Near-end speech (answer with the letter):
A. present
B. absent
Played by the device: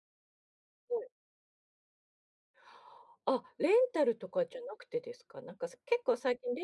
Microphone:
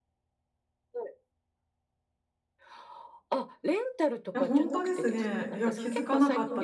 A